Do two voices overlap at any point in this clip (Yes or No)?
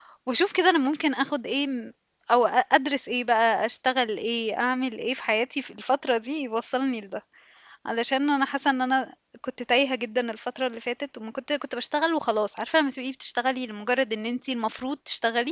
No